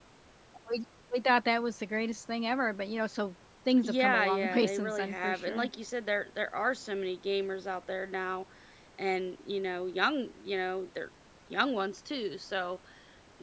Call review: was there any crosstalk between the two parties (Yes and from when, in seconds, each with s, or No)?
Yes, from 3.8 s